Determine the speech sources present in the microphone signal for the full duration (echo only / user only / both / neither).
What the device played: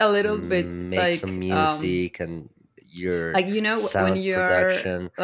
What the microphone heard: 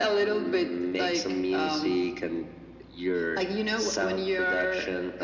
echo only